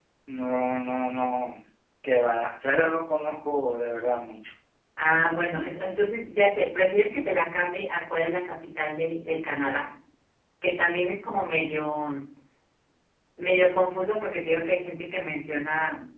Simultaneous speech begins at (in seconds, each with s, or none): none